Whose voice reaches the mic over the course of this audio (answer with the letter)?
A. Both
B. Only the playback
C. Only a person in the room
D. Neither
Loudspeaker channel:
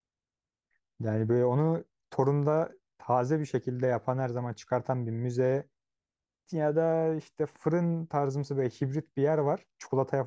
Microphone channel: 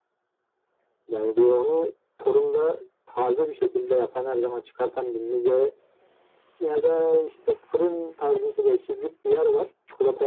B